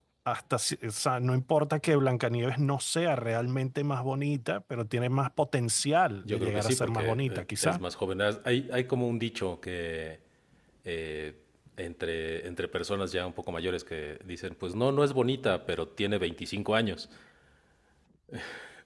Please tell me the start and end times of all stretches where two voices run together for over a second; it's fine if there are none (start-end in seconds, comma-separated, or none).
6.2-7.8